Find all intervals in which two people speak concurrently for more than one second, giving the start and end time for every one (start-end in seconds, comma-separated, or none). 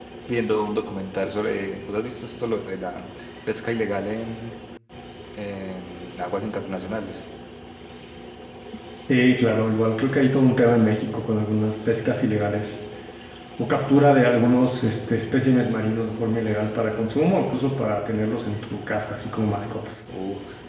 none